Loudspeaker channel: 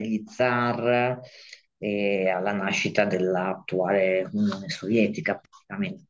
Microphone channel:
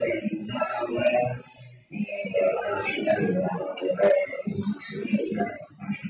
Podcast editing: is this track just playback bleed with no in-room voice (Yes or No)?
Yes